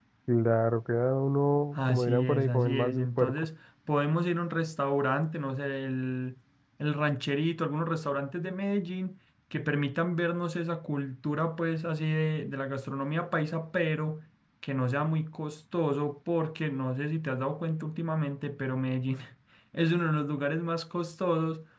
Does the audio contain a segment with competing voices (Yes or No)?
Yes